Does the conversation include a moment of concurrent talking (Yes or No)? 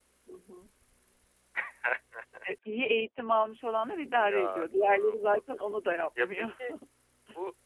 Yes